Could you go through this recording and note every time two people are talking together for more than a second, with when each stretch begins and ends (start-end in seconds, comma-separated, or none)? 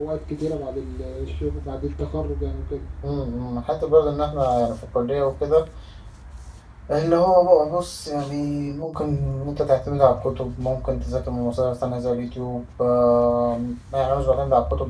none